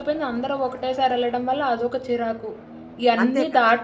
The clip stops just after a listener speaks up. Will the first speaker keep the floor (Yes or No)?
Yes